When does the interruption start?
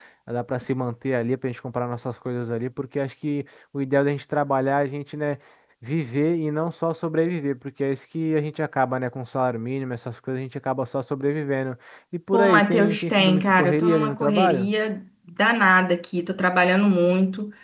12.3 s

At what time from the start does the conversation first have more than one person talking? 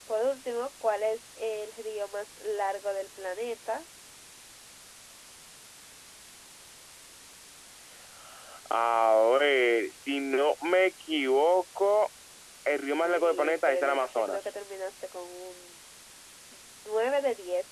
13.0 s

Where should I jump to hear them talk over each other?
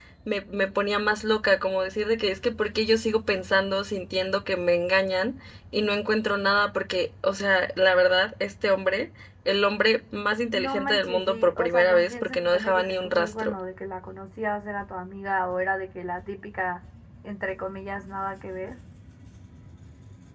10.5 s

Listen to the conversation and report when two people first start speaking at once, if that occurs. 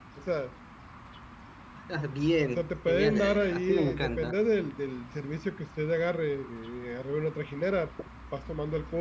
2.5 s

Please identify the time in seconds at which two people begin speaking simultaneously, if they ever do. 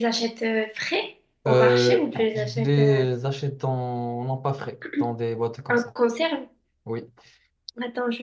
1.5 s

